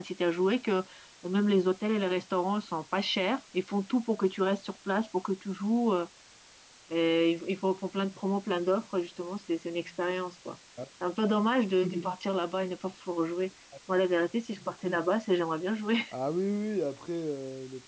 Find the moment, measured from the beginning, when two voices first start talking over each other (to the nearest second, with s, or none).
none